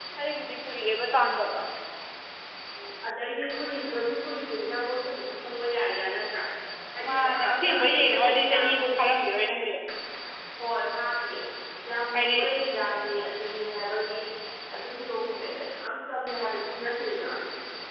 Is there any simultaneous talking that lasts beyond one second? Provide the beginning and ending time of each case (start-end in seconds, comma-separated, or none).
7.0-9.0